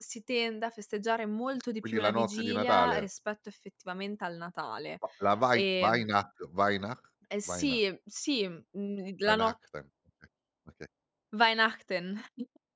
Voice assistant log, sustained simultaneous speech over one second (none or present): present